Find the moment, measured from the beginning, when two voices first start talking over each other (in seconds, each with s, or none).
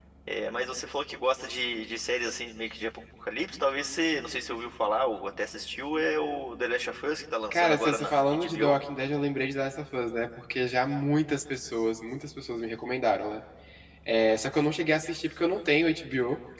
7.5 s